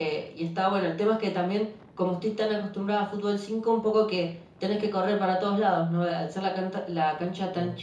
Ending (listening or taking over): listening